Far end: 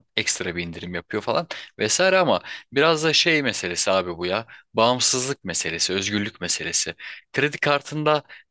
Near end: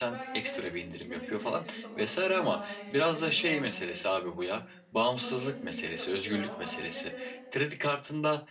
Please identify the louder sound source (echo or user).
echo